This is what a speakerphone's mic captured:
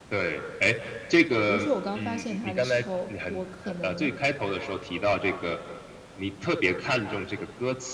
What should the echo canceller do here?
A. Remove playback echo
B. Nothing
A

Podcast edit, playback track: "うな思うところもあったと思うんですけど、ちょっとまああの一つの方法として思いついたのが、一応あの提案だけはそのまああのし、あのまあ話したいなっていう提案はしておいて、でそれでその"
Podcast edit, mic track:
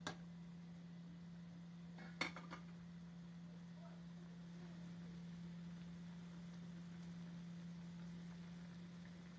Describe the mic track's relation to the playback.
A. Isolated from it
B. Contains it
A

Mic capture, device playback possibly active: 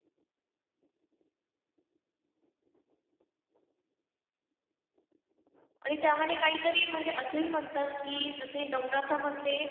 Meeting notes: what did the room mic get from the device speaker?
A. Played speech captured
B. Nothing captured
B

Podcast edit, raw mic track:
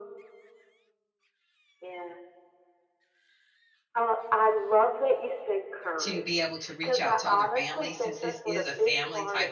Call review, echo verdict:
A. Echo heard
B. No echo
A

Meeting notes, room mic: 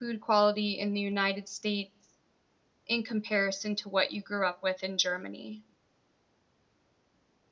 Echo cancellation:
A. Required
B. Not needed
B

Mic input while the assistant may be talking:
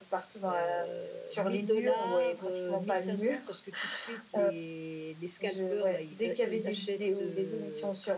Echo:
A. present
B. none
A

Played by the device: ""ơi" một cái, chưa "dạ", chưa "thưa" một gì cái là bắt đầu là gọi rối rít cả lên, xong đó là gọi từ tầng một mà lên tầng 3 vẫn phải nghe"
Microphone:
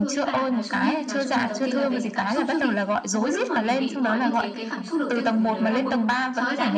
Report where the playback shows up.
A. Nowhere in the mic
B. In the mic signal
B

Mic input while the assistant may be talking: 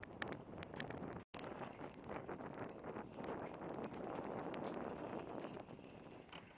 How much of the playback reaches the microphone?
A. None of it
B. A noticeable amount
A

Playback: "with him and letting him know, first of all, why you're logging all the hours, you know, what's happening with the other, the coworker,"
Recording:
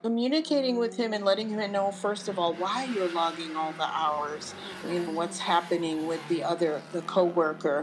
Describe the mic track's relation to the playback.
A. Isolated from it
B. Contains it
B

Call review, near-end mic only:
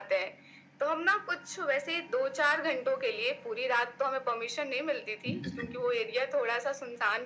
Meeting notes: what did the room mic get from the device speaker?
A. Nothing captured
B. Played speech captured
B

